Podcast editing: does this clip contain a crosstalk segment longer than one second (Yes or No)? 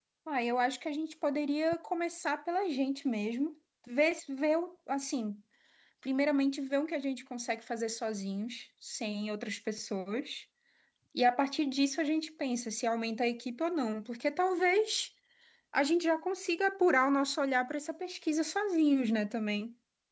No